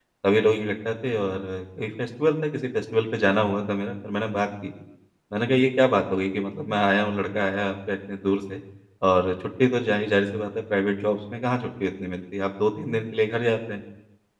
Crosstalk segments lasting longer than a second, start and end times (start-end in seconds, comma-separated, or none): none